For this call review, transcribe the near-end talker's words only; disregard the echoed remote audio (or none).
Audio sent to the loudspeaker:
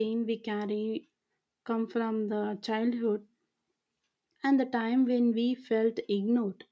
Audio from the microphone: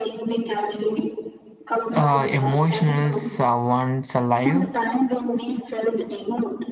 uh, emotional uh, ones alive